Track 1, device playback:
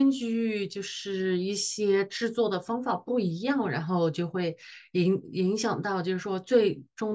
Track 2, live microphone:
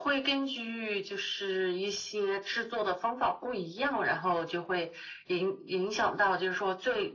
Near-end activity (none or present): none